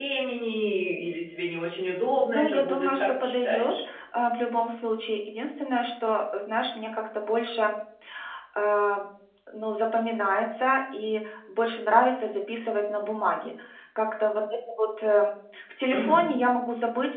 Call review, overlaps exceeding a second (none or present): present